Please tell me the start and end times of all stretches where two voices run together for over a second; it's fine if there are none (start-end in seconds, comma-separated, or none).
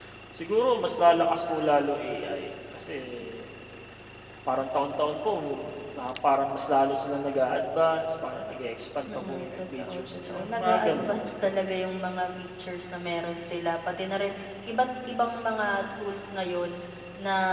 9.1-11.2